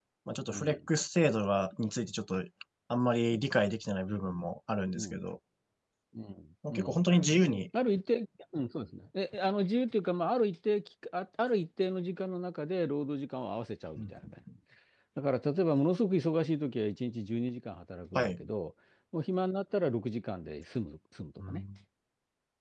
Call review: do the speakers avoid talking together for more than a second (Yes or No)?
Yes